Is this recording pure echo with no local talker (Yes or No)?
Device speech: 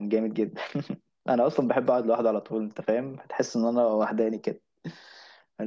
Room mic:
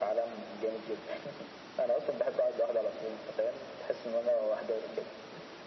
Yes